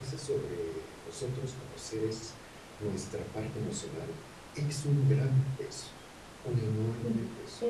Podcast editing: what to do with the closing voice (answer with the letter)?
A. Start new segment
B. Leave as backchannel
A